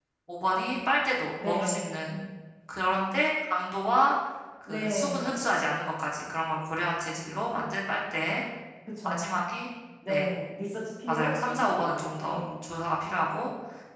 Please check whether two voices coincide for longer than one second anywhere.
Yes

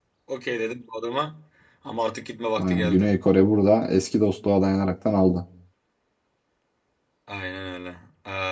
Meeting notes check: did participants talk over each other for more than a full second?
No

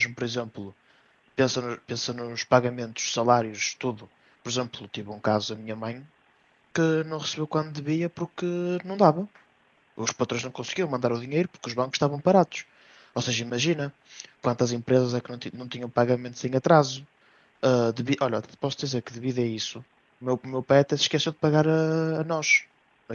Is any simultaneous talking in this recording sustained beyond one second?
No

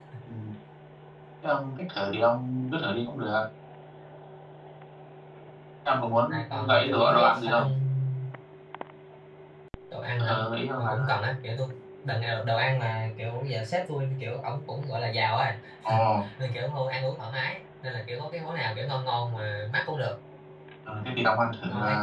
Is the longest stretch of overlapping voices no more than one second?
No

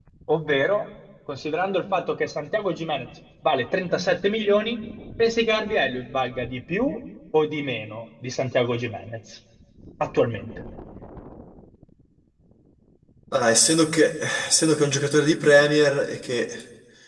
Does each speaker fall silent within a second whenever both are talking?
Yes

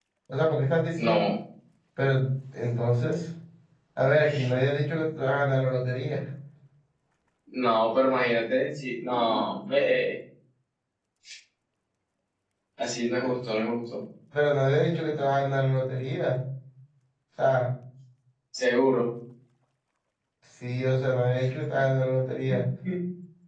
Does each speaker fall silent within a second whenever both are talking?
Yes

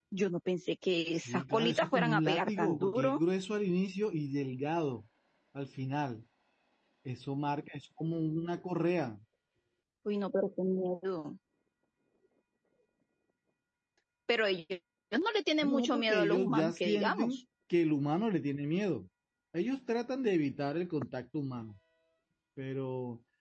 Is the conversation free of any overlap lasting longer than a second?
No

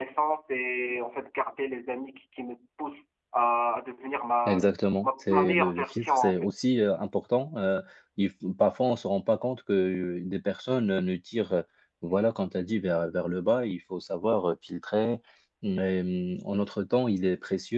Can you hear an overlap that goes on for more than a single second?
Yes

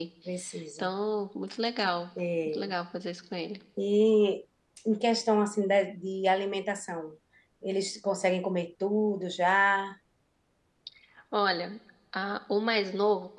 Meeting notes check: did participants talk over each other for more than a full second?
No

